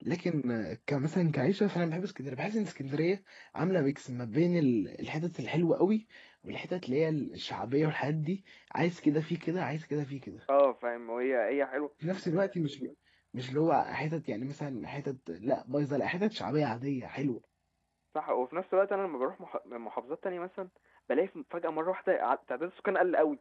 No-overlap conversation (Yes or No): Yes